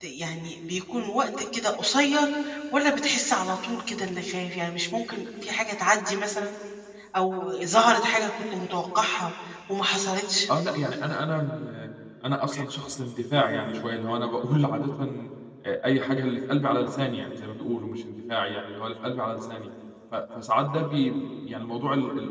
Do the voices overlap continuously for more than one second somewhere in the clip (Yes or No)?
No